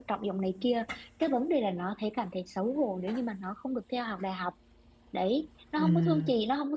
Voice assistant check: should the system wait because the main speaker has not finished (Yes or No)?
Yes